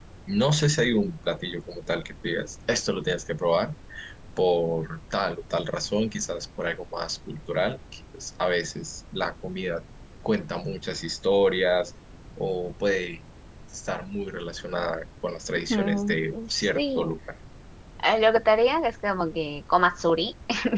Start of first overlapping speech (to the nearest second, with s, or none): 16 s